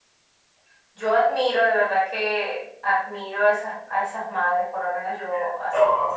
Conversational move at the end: taking over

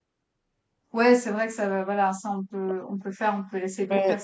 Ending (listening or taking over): taking over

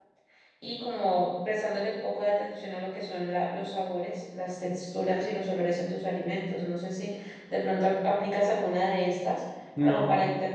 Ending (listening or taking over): listening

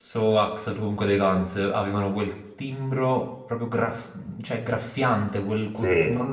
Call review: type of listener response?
listening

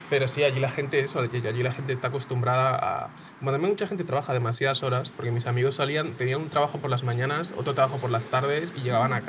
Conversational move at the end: listening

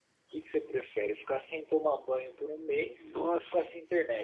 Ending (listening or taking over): listening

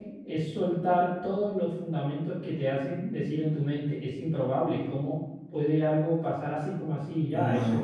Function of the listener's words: taking over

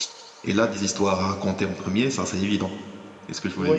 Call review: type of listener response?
taking over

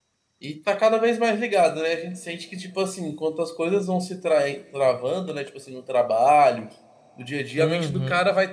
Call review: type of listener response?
listening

